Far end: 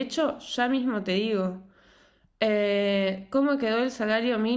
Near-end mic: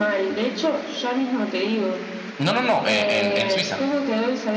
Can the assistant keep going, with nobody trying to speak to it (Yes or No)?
No